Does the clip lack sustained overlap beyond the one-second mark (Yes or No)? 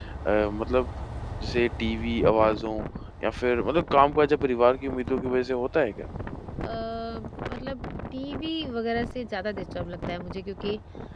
Yes